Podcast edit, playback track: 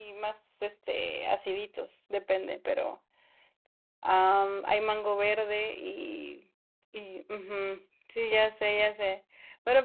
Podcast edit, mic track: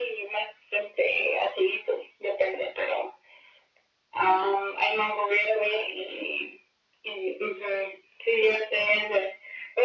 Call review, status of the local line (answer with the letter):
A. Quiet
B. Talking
A